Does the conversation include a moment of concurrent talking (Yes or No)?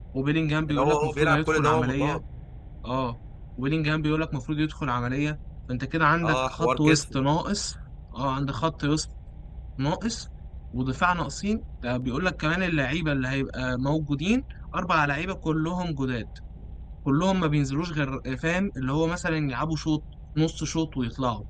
Yes